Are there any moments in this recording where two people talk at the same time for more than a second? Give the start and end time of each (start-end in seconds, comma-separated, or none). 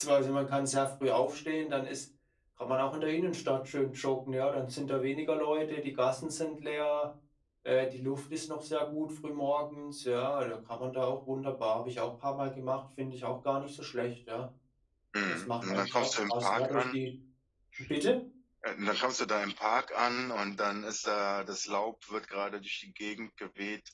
15.3-16.8